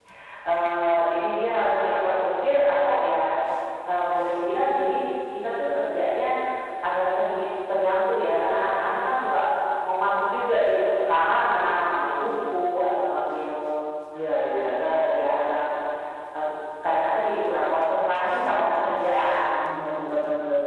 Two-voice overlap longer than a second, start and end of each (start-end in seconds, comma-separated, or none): none